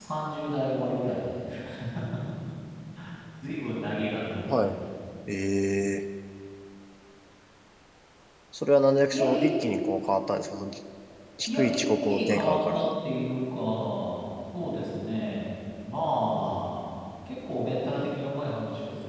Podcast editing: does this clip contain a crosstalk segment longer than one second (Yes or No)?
Yes